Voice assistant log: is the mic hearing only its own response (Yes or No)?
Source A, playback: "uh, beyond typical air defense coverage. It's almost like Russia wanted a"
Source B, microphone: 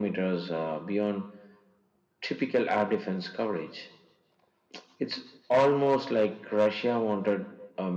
Yes